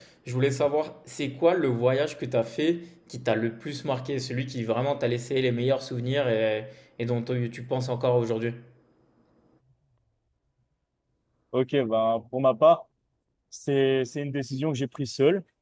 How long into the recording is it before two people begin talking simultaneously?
none

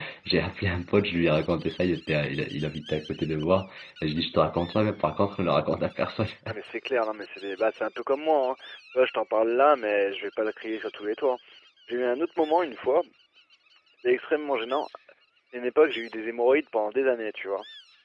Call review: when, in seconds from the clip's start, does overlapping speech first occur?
none

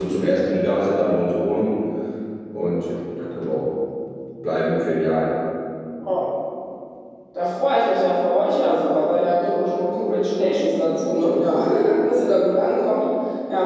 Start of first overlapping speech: none

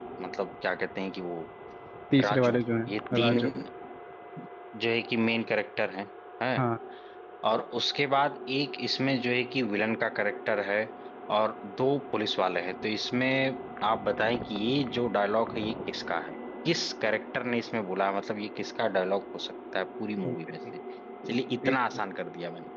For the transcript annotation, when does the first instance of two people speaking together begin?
2.2 s

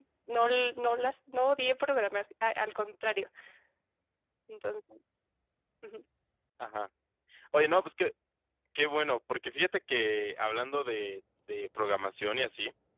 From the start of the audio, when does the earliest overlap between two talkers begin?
none

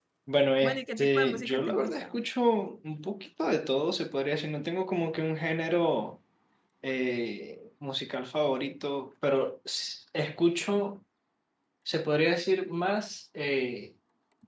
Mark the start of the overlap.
0.6 s

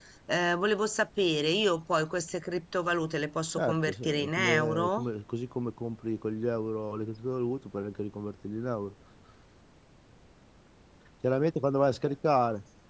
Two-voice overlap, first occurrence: 3.5 s

